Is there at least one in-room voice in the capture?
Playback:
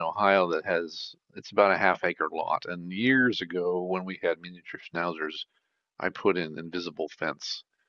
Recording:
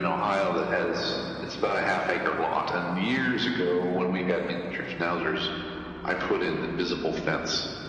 No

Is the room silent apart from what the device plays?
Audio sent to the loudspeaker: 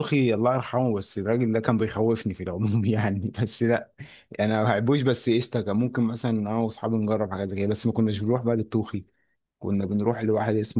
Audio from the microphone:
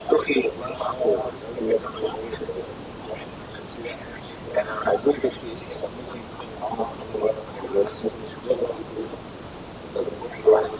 Yes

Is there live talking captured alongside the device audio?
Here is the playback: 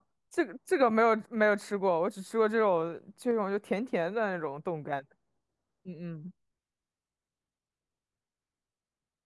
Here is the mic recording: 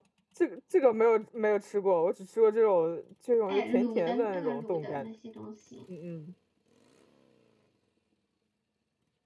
Yes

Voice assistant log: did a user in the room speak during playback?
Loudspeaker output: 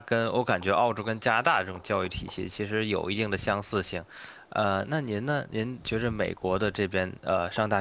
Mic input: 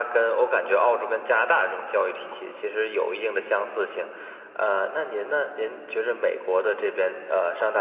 No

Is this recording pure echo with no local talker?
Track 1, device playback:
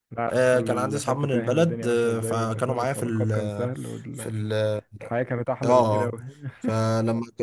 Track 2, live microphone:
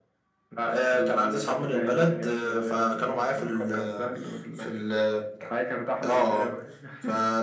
Yes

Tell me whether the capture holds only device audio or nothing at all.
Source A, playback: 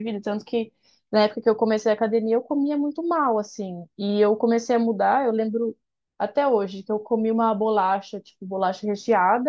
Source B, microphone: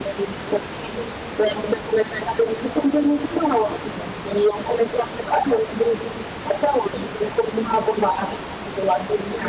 Yes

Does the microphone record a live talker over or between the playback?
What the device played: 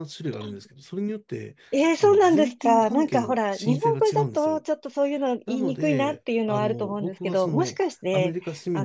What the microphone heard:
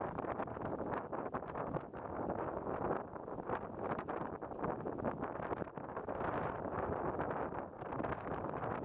No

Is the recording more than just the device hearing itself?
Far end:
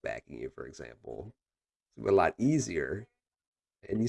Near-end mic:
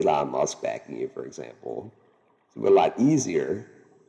No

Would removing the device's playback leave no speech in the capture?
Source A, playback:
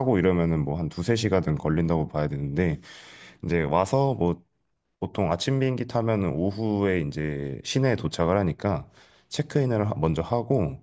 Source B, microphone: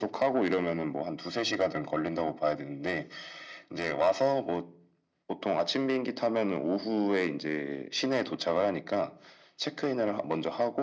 Yes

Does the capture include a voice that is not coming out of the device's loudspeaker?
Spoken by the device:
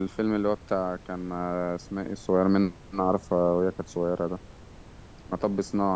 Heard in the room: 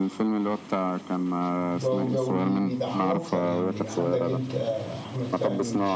Yes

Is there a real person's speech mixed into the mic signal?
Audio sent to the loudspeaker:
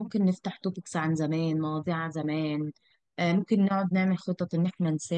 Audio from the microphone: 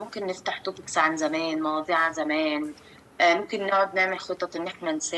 No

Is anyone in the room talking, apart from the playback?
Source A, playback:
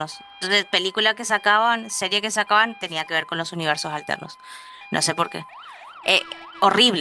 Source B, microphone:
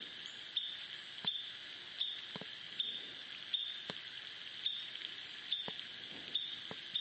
No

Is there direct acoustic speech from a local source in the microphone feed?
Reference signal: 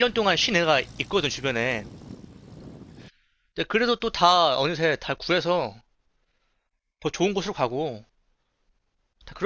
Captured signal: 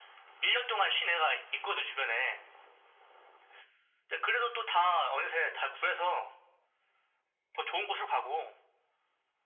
No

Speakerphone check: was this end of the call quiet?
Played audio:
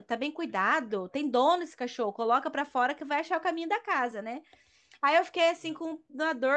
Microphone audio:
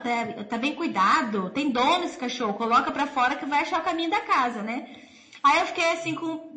Yes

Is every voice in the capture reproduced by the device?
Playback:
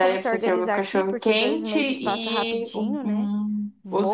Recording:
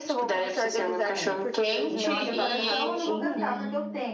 No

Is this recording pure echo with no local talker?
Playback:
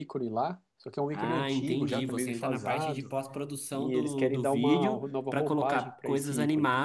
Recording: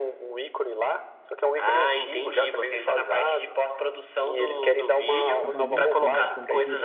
No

